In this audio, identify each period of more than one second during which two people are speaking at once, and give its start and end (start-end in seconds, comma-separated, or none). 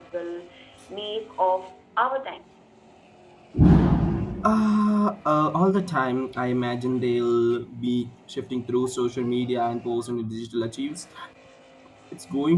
none